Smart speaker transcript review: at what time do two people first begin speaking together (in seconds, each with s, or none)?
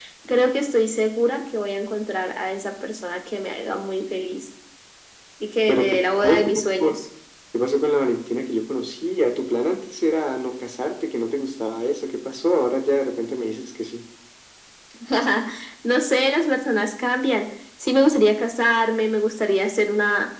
5.7 s